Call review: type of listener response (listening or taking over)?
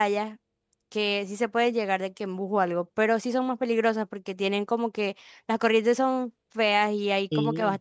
listening